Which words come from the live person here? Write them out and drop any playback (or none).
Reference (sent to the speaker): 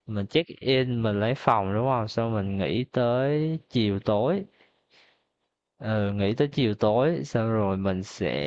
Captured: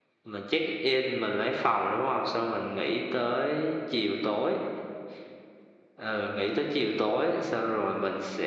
none